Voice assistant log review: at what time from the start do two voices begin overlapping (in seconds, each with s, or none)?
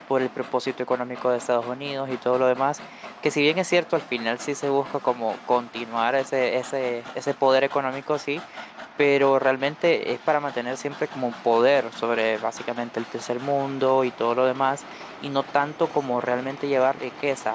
none